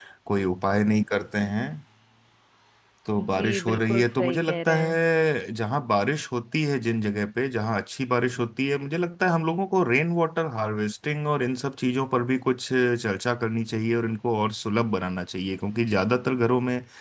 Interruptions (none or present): present